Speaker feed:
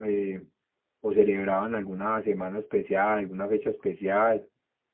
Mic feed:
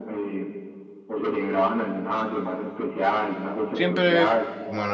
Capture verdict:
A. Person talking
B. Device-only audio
A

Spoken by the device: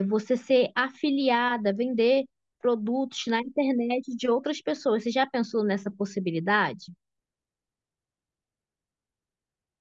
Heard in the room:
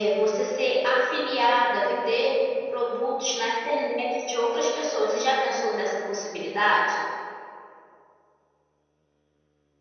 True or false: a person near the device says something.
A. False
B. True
A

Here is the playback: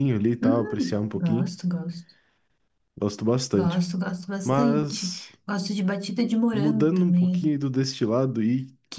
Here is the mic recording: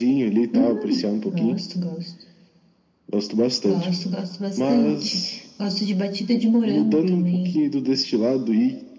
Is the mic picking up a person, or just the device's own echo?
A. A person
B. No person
B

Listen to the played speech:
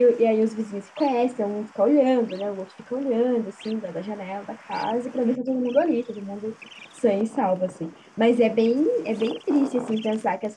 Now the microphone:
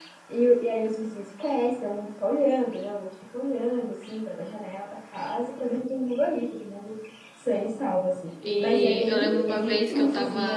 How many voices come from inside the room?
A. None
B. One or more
B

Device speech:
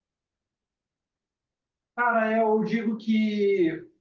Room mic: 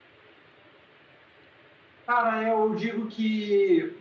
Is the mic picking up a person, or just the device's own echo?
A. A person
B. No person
B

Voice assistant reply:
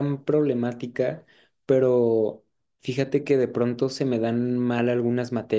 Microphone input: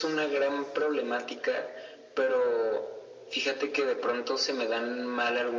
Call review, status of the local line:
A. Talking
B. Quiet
B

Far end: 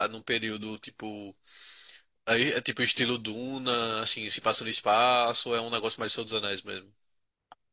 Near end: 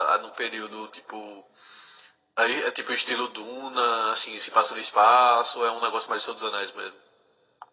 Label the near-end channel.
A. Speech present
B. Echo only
B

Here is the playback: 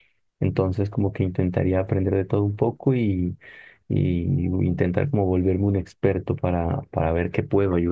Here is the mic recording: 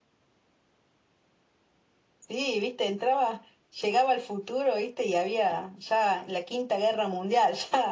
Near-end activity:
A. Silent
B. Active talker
B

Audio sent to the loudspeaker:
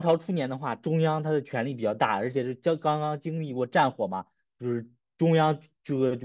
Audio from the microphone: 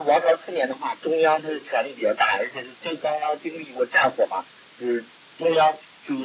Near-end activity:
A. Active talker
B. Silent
B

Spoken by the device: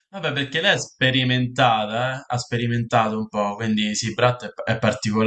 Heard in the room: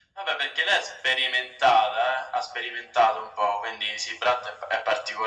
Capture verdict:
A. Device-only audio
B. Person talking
A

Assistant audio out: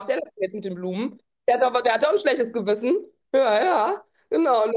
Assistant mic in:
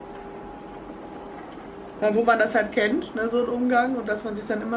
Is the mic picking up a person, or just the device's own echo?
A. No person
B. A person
B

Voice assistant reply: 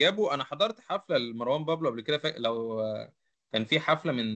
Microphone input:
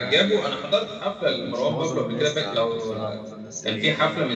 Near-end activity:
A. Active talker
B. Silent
A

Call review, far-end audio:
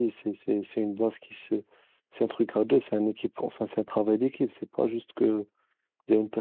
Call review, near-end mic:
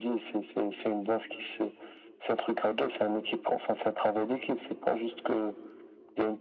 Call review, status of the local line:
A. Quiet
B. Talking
A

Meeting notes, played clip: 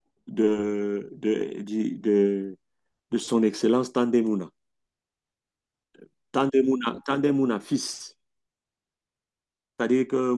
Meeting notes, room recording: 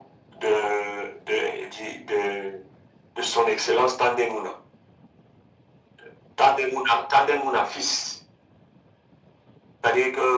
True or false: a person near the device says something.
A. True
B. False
B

